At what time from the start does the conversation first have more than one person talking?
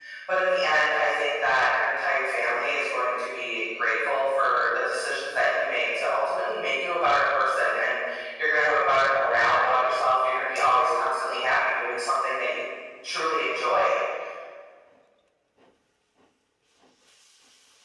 none

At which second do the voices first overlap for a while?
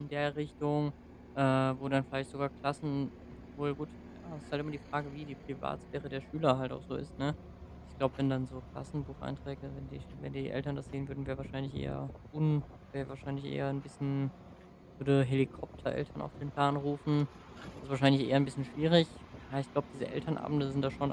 none

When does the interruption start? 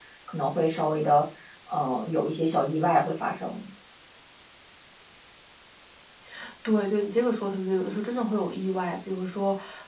none

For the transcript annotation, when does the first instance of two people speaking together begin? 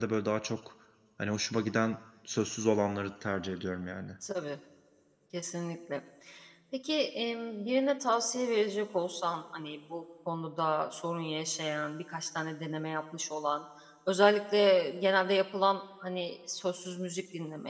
none

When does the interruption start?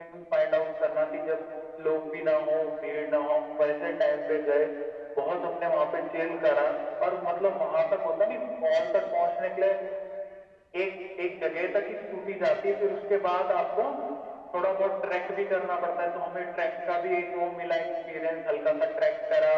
none

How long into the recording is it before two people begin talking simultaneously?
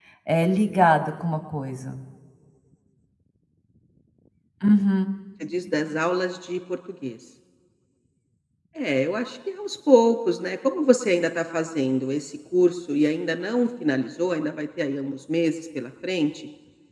none

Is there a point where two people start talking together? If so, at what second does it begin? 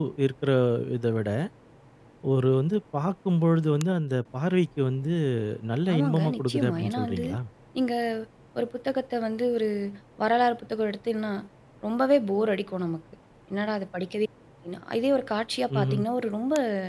6 s

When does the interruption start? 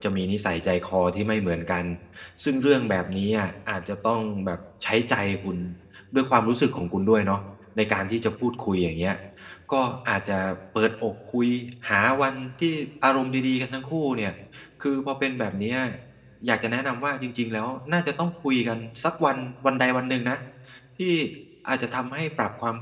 none

